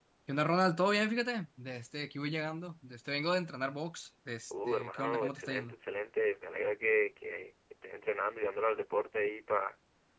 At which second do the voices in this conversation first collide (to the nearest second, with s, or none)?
5 s